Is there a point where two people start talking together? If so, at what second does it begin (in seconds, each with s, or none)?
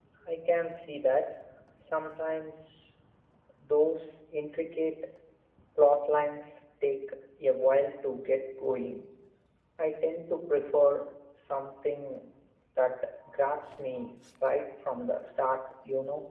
none